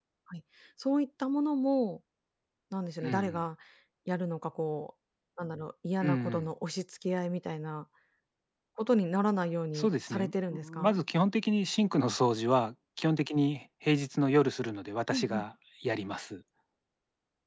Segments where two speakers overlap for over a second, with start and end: 9.8-11.0

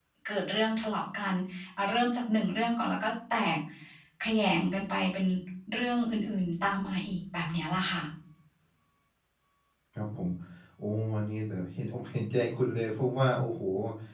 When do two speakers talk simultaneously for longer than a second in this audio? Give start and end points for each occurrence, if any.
none

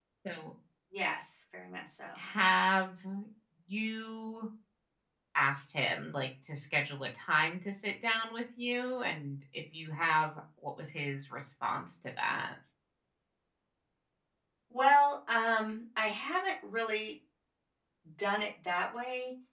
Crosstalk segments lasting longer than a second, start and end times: none

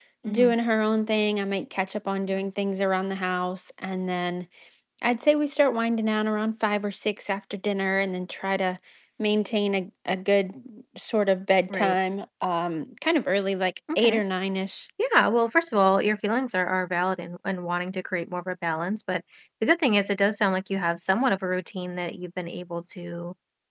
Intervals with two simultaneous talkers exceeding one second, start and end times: none

